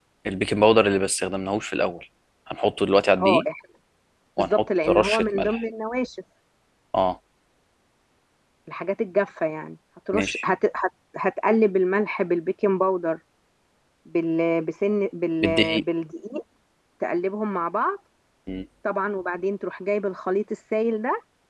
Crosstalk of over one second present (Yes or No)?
Yes